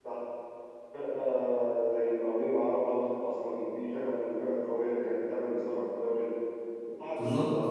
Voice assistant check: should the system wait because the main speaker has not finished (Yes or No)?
Yes